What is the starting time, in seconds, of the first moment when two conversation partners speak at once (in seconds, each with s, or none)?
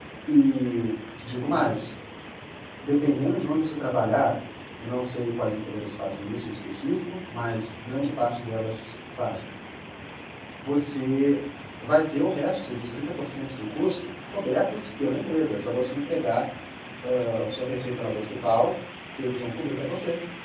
none